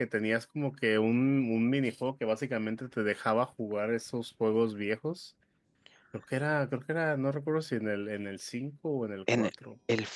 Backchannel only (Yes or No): No